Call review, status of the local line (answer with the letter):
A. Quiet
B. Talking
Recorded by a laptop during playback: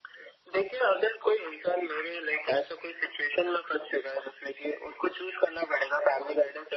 A